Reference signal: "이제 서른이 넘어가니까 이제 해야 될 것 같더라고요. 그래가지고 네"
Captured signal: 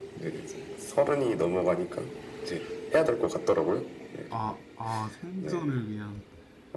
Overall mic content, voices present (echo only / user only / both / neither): both